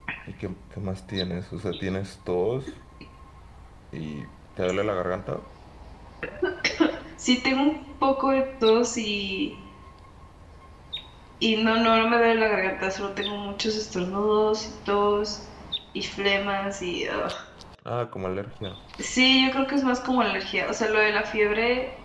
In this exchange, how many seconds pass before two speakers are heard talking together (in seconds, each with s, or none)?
none